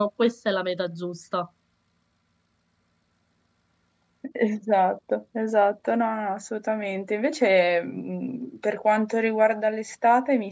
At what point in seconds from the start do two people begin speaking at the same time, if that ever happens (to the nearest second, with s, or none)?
none